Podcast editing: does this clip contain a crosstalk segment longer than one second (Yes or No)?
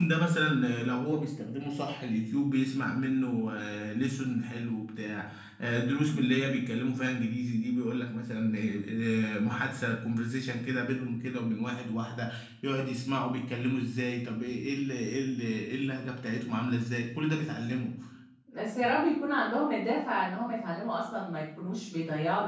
No